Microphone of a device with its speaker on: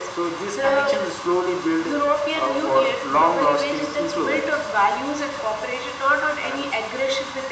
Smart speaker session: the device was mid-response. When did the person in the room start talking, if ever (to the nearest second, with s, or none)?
none